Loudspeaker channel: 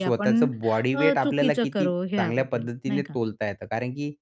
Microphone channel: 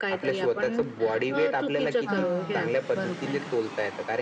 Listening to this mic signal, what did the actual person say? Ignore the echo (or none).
हां, बरोबर.